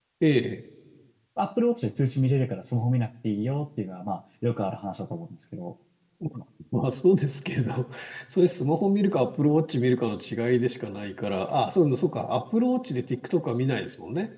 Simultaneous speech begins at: none

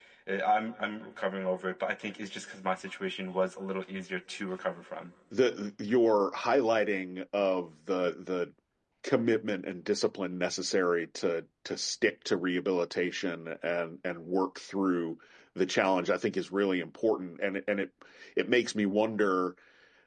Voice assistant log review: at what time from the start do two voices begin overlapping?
none

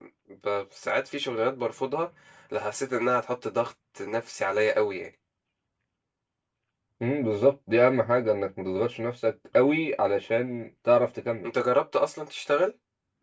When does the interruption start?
none

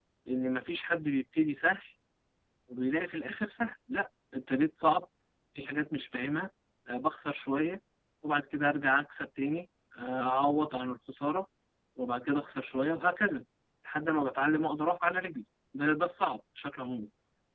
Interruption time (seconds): none

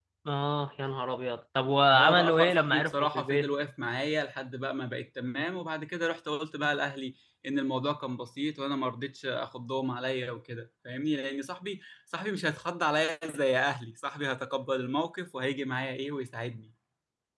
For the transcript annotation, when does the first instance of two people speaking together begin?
1.9 s

